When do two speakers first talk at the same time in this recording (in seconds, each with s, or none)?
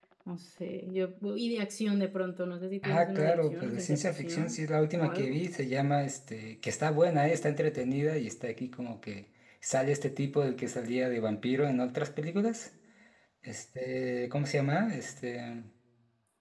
2.8 s